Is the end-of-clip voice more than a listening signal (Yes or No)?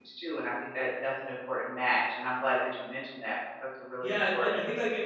Yes